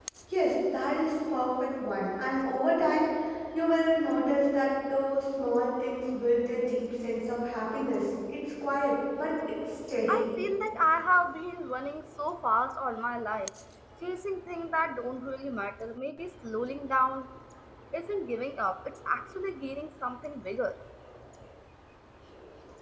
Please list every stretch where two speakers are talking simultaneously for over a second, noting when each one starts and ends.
none

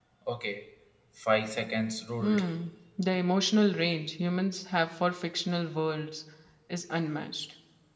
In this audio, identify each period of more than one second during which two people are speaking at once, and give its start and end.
none

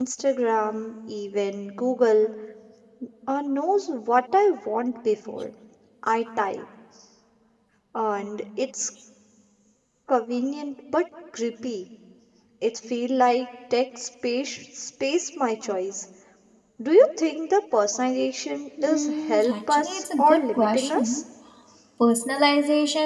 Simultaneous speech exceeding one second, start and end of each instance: 18.8-21.2

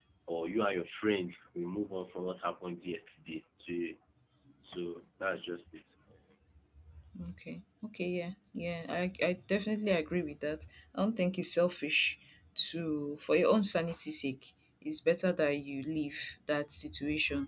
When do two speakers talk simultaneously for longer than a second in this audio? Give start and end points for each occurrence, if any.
none

